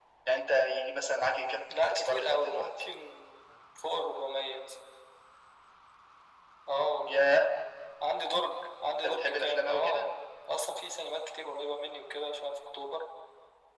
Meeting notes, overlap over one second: present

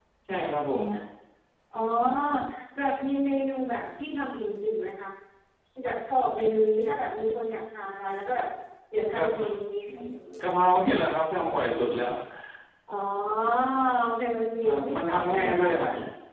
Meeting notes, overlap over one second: present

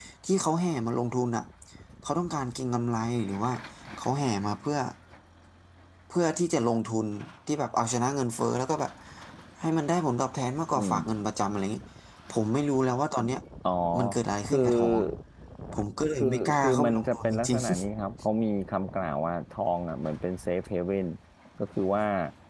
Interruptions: present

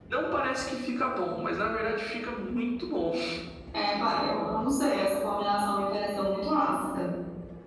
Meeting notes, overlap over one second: none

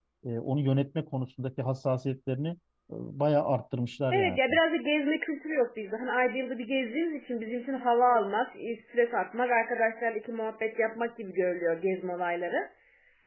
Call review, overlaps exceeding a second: none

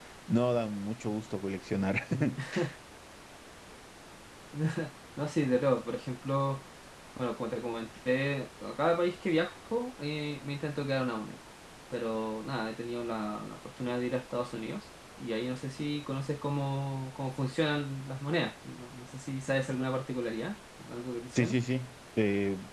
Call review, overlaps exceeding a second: none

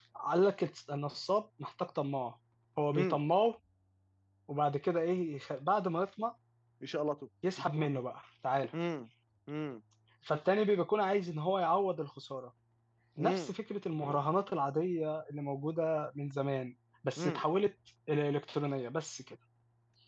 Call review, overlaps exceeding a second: none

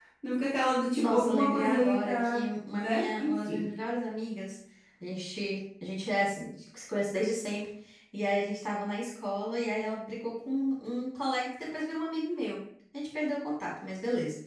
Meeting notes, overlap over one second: present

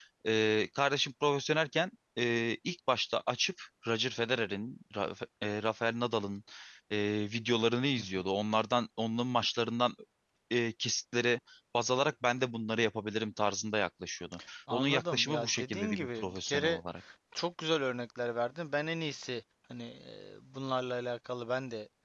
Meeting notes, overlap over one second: present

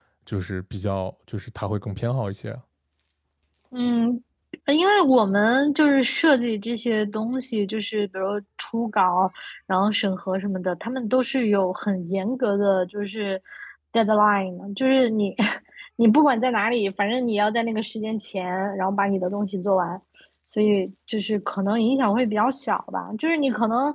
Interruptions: none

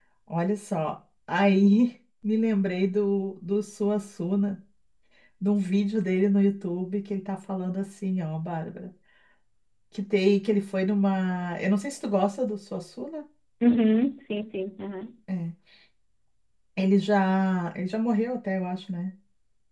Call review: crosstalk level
none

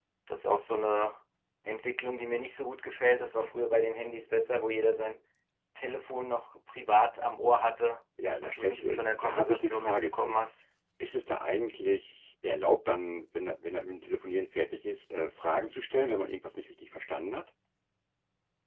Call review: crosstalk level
present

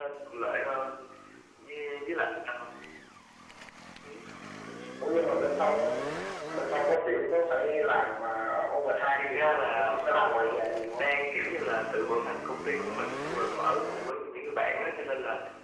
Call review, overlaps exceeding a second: present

